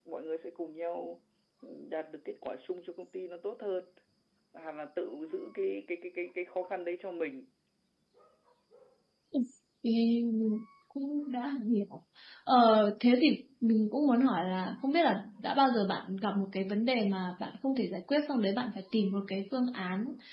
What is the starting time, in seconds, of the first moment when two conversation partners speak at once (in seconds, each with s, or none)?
none